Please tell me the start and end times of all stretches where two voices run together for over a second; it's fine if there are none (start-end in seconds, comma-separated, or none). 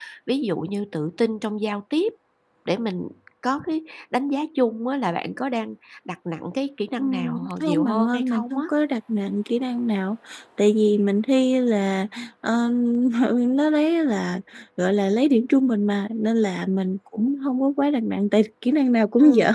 7.0-8.6